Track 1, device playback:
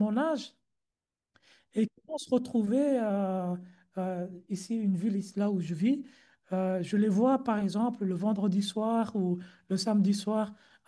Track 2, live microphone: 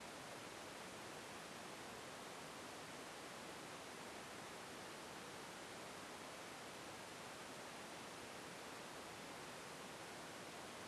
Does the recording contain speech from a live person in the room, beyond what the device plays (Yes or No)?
No